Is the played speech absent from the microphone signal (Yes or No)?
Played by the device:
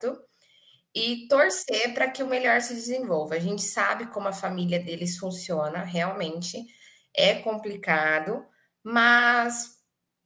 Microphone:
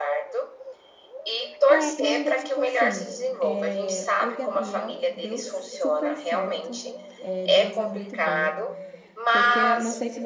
No